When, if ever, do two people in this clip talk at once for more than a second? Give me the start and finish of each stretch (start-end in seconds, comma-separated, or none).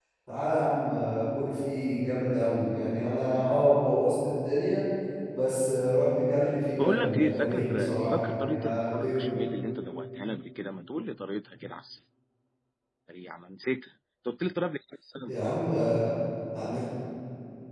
6.8-9.3